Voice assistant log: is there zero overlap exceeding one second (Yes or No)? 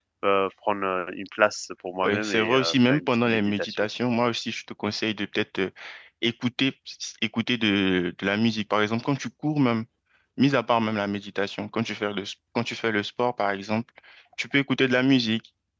No